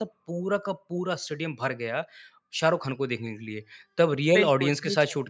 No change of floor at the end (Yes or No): Yes